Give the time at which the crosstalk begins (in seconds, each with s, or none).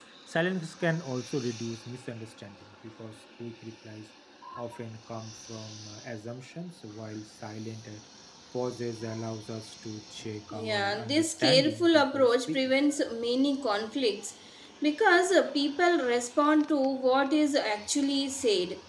10.5 s